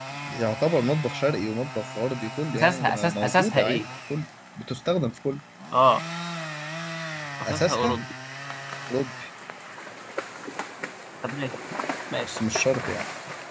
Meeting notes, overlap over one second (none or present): present